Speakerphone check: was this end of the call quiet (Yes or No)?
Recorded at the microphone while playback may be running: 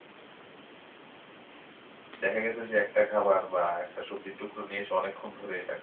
No